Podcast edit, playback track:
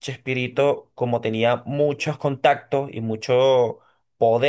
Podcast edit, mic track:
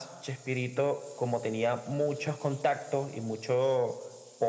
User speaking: No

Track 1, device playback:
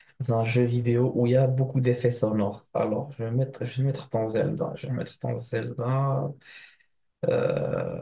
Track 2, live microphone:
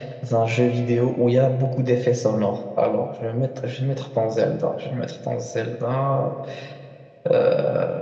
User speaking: No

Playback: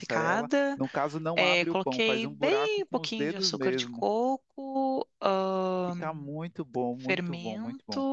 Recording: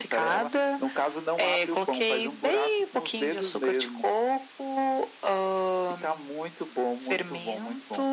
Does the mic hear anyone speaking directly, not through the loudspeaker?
No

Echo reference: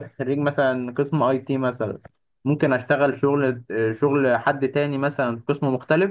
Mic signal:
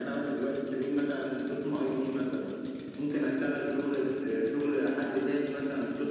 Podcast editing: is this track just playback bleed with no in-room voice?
Yes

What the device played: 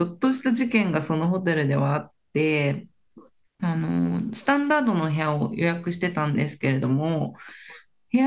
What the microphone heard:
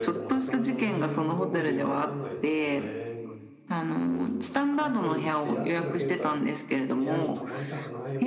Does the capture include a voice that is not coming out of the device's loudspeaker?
Yes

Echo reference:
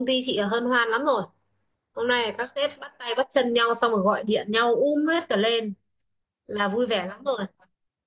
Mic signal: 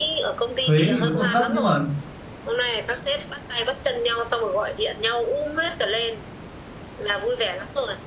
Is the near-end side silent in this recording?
No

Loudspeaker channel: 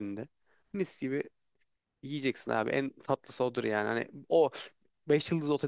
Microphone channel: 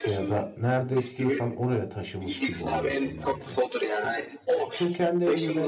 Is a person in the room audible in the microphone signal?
Yes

